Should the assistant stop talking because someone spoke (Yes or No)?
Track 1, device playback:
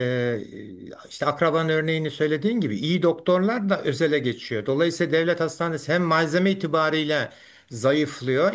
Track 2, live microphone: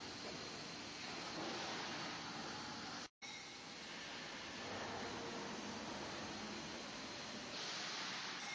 No